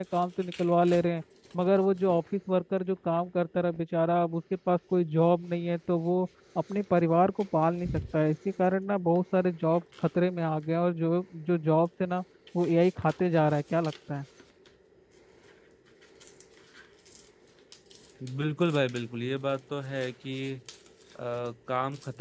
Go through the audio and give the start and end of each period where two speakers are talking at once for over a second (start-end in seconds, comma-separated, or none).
none